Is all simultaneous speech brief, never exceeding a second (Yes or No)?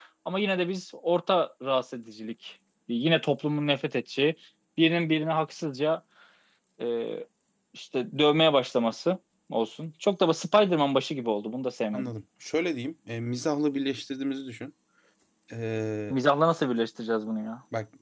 Yes